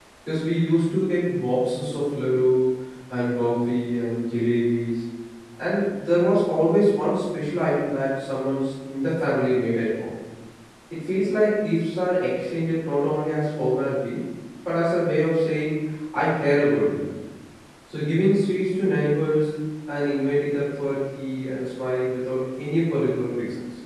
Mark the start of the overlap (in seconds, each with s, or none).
none